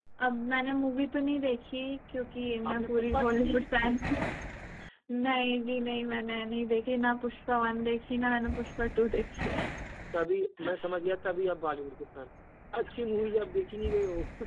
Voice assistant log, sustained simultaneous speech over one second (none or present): present